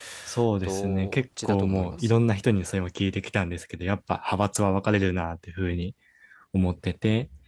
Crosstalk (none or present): present